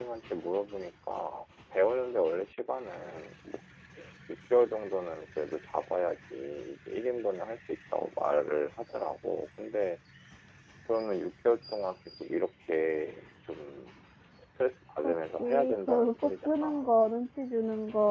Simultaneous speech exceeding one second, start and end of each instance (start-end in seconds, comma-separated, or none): 15.0-16.8